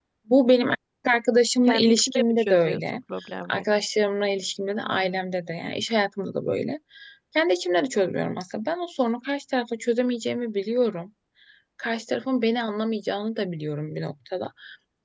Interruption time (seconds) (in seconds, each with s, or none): 1.7 s